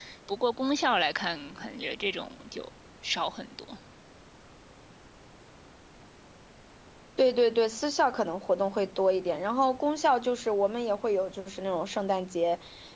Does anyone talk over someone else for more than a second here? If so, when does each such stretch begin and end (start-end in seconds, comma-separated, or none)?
none